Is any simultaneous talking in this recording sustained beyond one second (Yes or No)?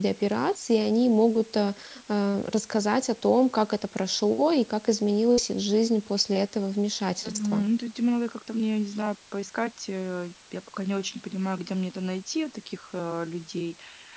No